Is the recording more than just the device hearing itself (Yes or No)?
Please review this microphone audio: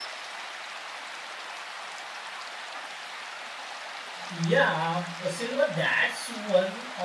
Yes